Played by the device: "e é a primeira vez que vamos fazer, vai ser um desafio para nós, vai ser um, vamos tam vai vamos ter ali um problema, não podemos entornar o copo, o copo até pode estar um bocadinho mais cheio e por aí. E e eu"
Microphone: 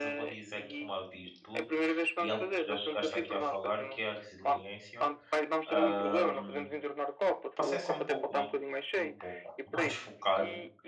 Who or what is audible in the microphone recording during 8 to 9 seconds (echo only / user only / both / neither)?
both